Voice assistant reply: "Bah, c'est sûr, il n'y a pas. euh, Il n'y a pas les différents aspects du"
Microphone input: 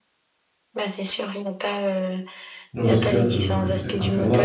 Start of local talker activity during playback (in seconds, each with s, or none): 2.7 s